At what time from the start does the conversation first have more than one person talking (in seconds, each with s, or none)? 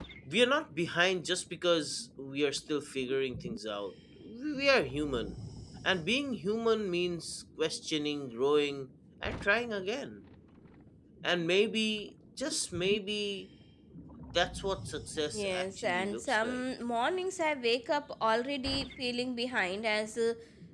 15.3 s